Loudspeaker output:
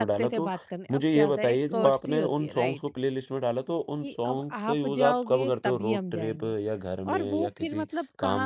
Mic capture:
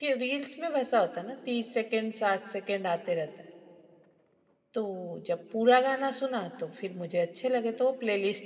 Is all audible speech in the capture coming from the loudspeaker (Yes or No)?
No